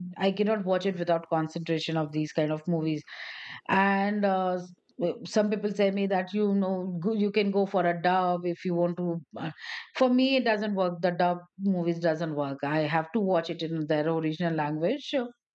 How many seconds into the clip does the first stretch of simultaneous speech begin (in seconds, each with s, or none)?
none